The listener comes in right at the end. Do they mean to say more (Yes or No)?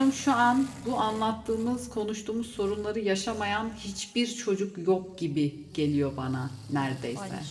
Yes